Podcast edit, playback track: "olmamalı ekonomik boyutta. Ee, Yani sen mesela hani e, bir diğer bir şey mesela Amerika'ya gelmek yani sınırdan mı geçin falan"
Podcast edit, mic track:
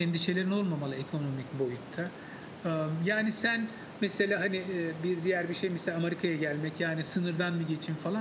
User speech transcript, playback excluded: none

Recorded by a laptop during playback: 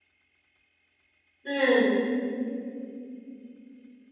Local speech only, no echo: 嗯

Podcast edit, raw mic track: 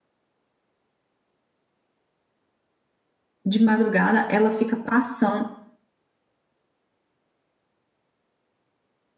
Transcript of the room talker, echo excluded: de madrugada, ela fica passando.

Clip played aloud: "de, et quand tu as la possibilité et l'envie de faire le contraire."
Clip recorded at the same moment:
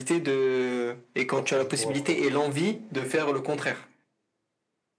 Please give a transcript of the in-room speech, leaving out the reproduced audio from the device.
Partie du courage, quoi.

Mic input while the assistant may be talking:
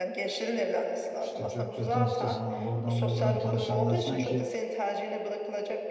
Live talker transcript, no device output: işte çöp çatan sitesinden oradan buradan tanışanlar sanki

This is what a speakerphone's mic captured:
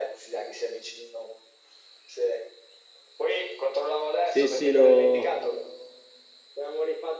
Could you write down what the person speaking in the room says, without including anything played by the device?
Sì, sì, lo...

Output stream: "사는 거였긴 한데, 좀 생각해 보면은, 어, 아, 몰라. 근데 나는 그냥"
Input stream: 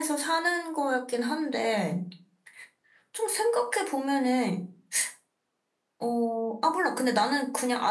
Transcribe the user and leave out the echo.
none

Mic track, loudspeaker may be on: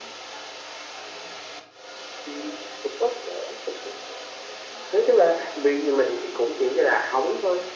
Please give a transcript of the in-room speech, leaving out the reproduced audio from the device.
none

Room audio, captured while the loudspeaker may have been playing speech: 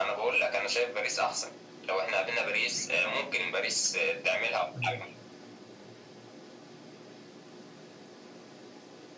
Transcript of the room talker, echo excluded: مم.

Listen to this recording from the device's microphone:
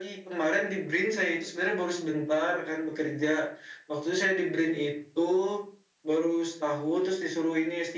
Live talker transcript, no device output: none

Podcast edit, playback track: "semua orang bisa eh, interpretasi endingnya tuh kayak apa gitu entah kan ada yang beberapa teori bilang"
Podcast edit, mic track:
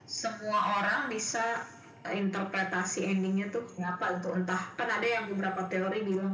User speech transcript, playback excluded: none

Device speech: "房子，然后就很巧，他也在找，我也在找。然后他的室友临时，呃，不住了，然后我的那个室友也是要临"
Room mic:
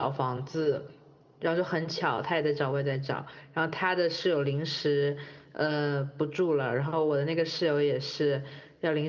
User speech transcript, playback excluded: none

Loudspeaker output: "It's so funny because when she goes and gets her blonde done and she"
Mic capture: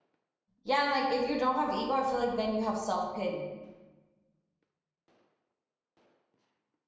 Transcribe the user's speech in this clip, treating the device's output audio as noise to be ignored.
Yeah, and like if you don't have ego, I feel like then you have self-pity,

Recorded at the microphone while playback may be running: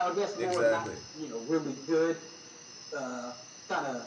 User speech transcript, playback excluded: Exactly.

